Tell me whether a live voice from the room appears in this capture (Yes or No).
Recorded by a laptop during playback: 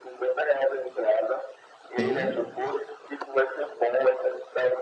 Yes